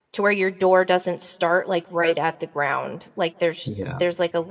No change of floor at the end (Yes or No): Yes